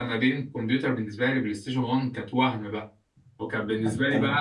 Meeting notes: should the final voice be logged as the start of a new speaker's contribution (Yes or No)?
No